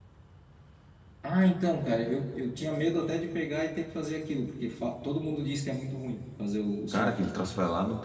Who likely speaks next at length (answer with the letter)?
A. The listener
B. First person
A